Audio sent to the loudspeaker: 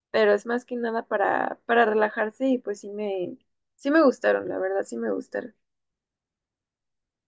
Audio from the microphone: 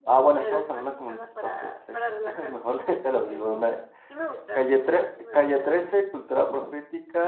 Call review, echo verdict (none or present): present